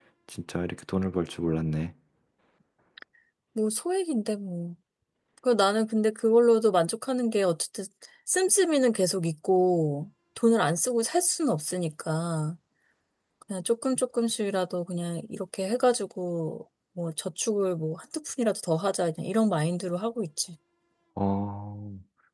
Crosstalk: none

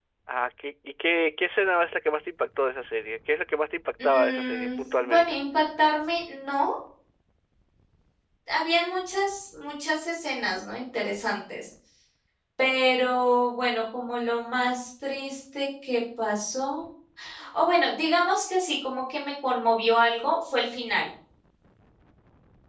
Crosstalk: present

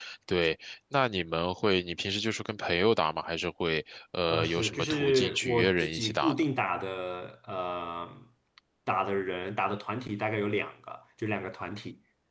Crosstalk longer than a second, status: present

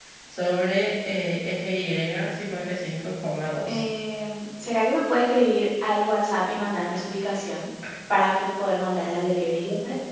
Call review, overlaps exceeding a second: none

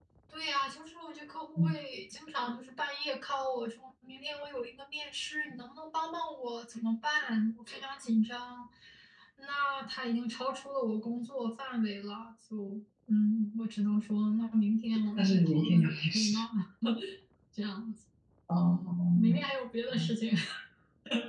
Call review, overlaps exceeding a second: present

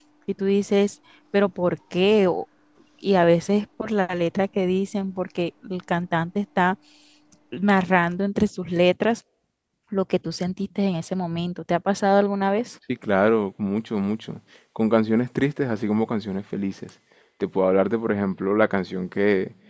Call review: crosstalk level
none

